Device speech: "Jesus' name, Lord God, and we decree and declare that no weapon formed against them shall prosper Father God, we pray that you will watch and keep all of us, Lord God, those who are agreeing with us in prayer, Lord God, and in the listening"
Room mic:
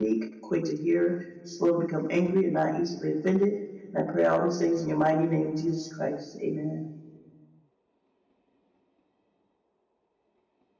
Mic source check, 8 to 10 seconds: neither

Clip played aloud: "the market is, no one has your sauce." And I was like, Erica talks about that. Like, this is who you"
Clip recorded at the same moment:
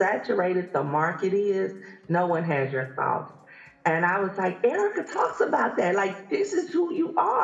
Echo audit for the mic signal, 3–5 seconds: echo only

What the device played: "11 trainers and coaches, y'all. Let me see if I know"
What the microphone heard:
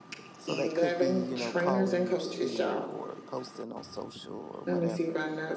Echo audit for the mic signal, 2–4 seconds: both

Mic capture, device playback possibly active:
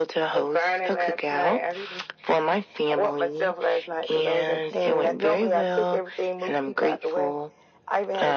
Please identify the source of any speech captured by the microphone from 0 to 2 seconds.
echo only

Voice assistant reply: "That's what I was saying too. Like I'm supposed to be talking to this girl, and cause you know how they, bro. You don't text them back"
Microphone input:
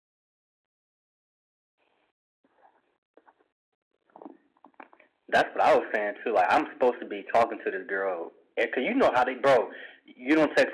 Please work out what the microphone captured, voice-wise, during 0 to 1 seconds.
neither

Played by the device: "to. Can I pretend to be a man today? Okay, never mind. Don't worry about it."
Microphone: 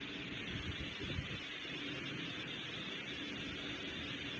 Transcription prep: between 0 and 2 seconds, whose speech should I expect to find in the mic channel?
neither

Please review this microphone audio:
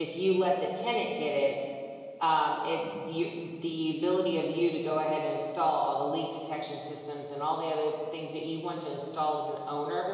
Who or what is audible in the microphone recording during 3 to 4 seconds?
user only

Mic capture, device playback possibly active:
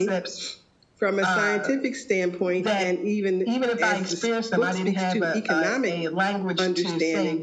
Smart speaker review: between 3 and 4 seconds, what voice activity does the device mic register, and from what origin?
both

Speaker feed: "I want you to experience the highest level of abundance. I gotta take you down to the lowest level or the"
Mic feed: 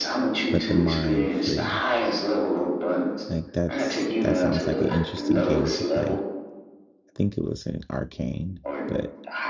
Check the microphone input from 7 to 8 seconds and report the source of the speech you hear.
user only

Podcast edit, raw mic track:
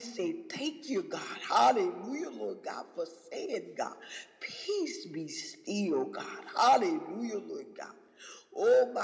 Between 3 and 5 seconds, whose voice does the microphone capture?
echo only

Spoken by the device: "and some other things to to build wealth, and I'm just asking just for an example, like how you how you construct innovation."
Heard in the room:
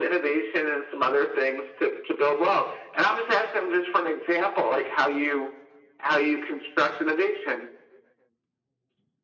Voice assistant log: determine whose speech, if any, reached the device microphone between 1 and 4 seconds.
echo only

